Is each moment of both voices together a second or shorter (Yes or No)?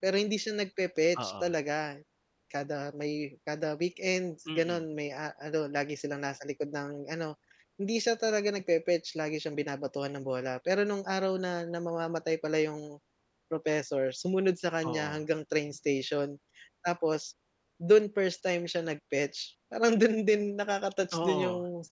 Yes